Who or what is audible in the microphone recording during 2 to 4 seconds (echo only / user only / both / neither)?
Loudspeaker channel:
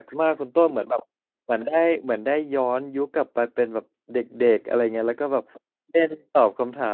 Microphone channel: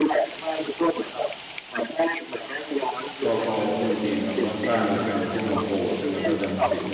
both